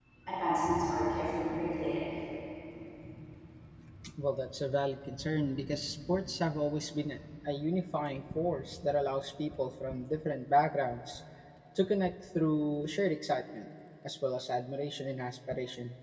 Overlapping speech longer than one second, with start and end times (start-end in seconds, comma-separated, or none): none